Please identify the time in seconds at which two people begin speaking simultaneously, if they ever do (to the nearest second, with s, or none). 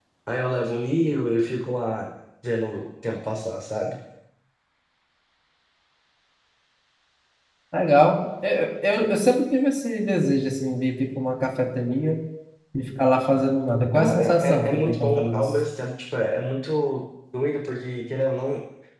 14 s